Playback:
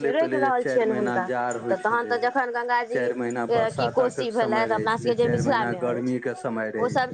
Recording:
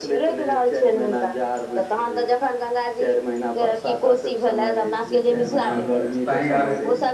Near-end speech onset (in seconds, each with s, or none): 5.6 s